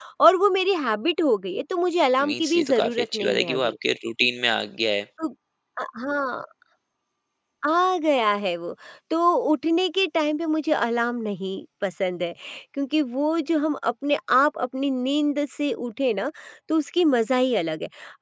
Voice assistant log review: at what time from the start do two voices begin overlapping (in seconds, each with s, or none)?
2.2 s